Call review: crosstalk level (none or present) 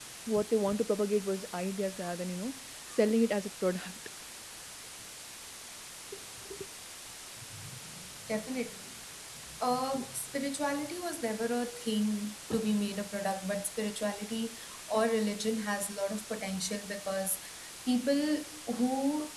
none